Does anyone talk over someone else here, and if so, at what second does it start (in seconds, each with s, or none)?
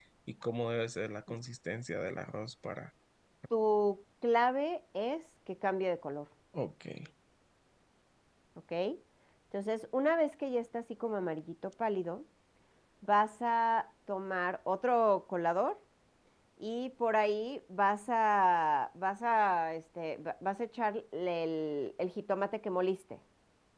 none